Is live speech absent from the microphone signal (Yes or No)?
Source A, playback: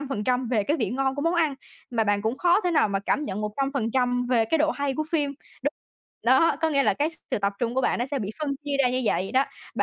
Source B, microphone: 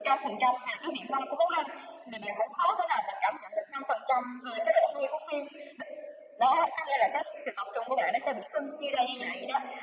No